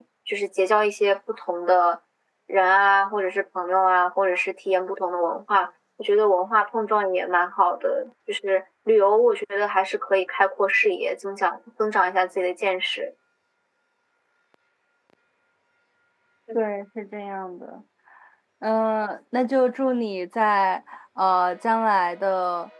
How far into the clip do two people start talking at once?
none

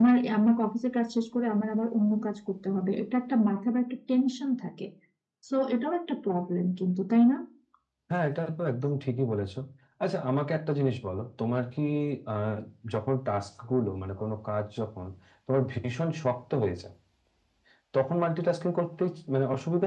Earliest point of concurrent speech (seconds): none

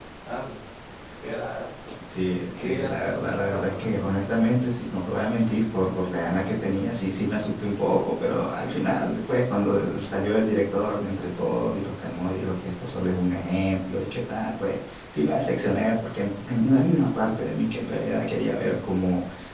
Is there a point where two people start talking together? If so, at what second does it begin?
2.6 s

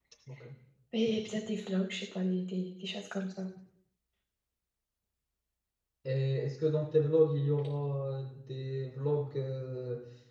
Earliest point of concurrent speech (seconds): none

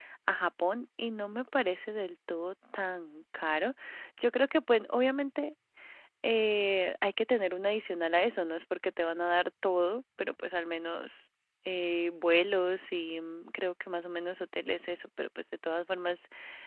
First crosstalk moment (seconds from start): none

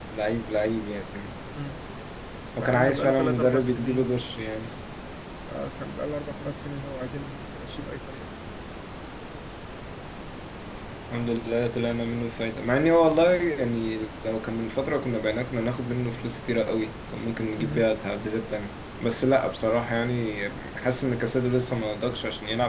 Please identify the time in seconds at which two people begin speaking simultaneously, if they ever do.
2.6 s

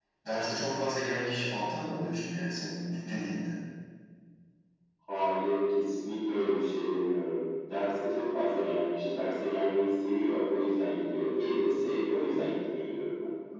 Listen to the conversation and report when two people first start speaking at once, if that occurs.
none

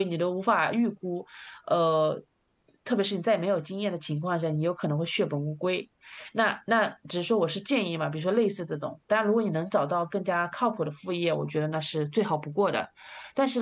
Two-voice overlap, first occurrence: none

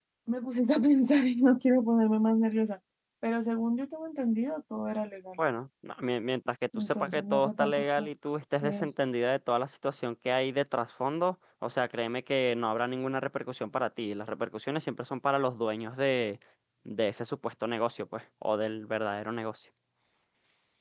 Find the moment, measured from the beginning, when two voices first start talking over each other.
6.8 s

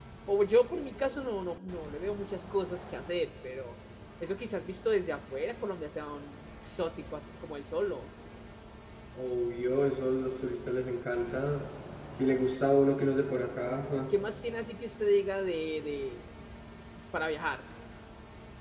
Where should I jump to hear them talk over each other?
none

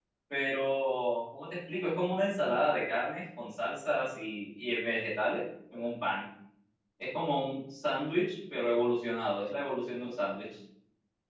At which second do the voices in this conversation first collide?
none

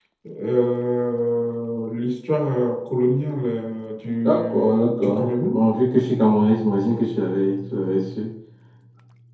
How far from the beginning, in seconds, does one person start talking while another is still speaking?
4.2 s

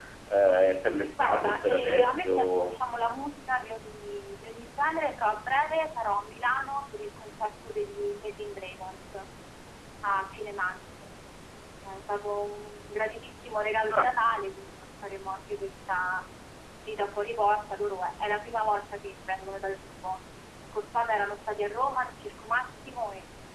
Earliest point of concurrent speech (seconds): 1.2 s

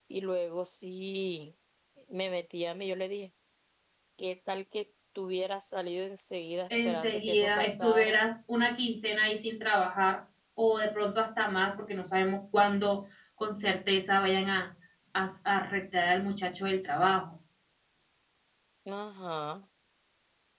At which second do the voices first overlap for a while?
6.7 s

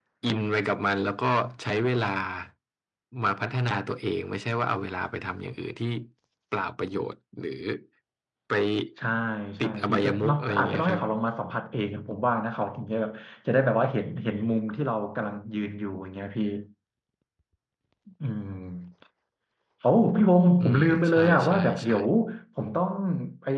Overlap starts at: 9.6 s

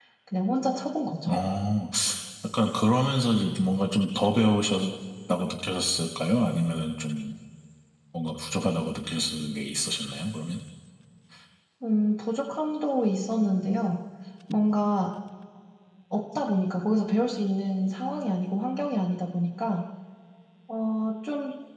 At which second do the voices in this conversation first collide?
none

